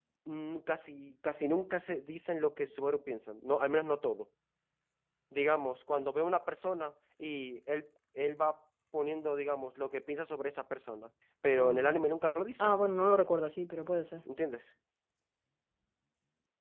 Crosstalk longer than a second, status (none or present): none